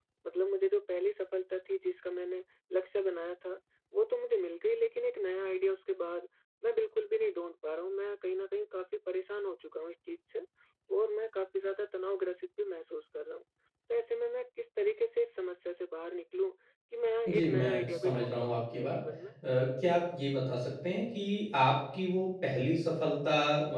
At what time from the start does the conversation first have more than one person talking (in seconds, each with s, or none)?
17.2 s